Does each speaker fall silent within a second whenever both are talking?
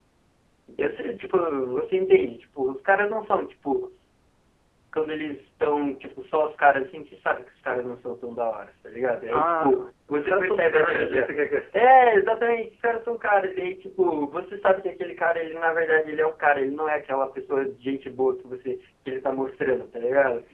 No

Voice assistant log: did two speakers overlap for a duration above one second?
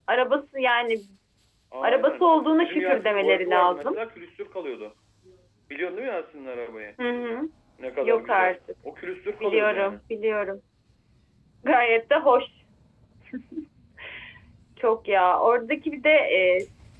Yes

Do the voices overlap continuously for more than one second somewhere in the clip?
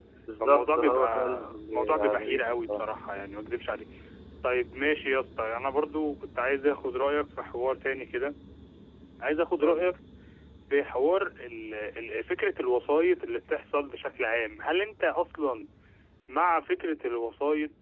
Yes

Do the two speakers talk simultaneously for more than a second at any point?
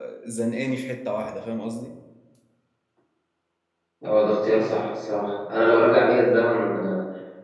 No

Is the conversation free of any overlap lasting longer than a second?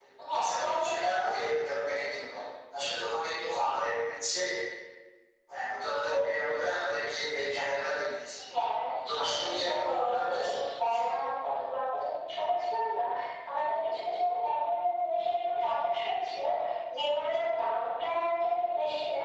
No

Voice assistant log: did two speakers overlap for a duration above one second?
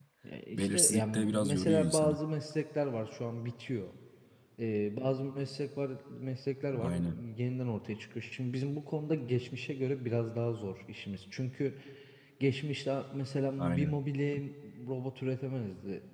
Yes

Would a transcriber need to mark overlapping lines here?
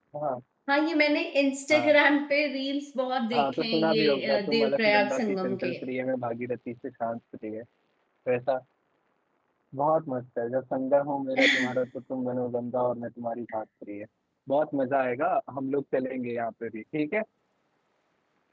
Yes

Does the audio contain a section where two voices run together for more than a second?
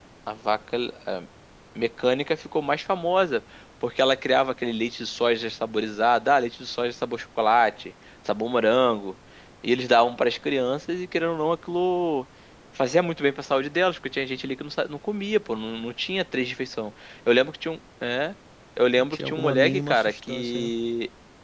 Yes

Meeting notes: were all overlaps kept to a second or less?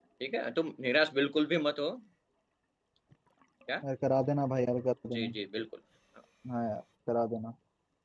Yes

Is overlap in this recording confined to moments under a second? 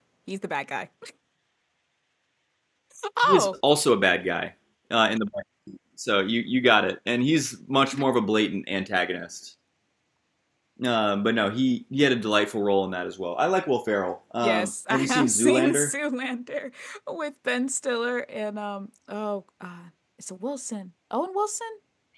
No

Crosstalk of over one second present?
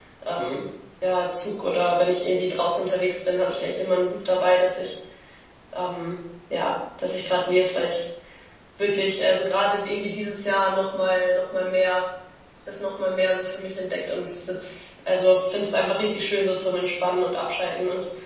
No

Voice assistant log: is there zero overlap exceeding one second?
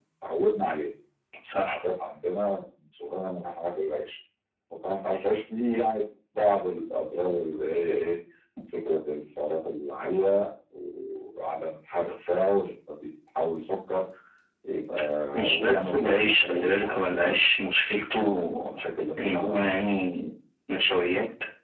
No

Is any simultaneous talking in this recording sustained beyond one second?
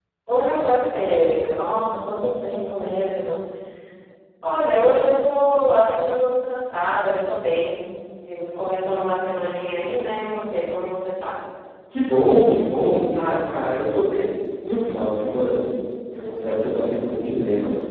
No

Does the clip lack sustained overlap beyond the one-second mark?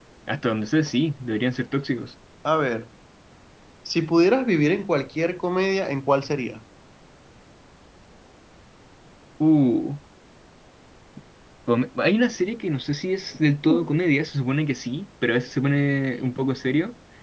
Yes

